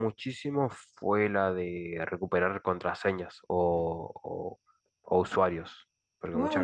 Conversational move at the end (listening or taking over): taking over